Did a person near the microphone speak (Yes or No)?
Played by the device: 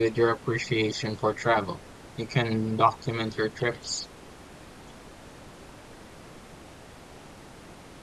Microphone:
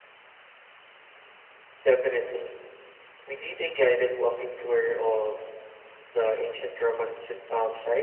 Yes